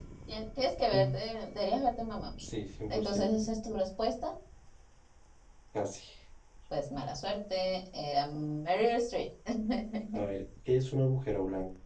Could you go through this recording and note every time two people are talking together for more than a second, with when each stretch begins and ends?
none

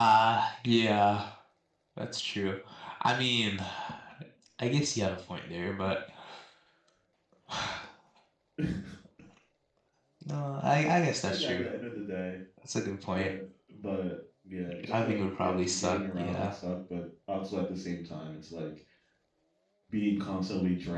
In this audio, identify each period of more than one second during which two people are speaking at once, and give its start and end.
14.8-16.5

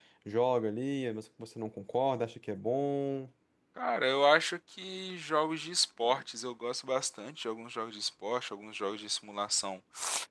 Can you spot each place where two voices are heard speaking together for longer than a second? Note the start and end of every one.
none

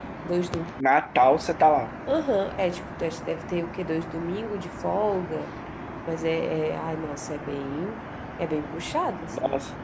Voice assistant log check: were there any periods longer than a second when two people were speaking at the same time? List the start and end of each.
none

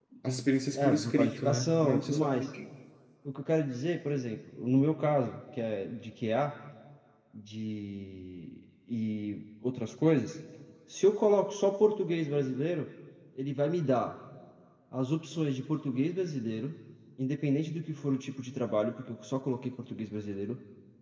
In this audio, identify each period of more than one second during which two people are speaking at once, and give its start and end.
0.8-2.5

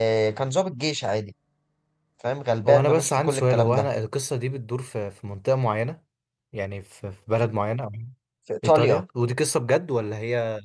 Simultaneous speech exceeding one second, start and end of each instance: 2.7-3.9

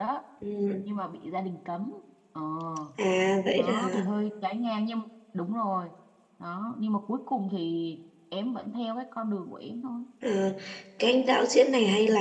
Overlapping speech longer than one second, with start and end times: none

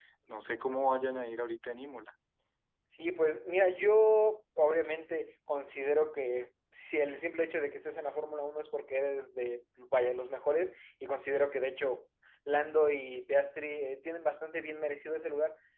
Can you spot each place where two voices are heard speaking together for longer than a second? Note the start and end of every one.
none

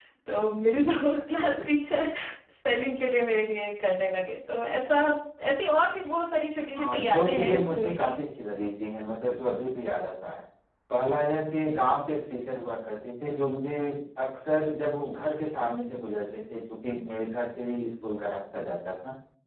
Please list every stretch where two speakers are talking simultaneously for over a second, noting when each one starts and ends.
6.7-8.2

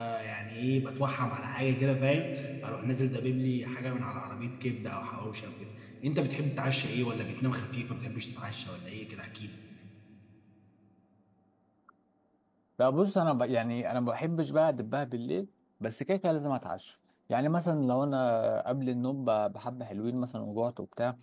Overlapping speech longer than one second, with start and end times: none

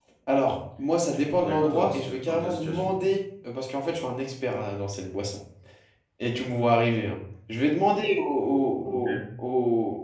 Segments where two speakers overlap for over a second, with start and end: 1.1-3.0

